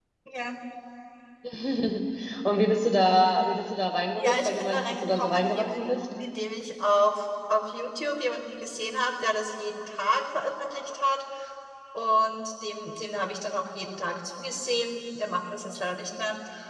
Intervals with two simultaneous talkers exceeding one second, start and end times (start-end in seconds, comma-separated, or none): 4.2-5.9